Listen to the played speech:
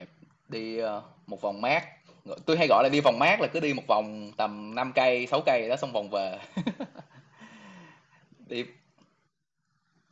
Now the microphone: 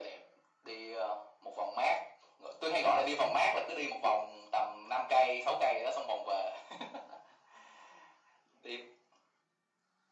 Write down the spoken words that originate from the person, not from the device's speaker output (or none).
none